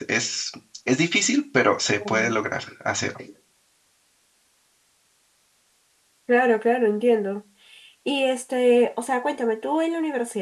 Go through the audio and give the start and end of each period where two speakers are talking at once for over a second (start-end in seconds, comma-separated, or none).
none